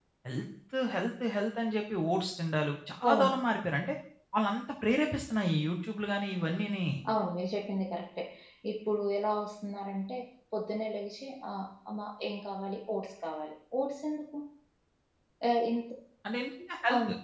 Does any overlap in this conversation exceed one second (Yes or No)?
No